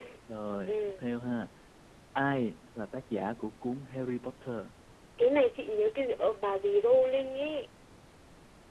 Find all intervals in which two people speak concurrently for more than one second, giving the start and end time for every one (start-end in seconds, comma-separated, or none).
none